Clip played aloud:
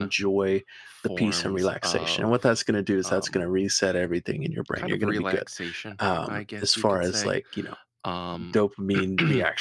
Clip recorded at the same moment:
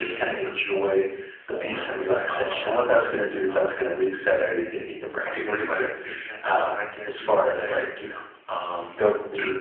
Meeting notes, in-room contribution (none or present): none